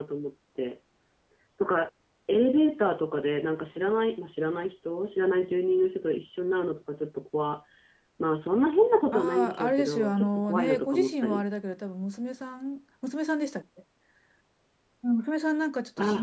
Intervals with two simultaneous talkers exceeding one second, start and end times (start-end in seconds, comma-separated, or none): 9.1-11.4